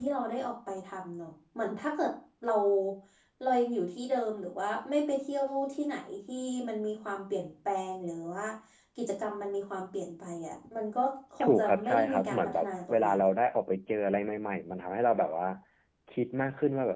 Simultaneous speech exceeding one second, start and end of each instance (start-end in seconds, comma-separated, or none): 11.4-13.3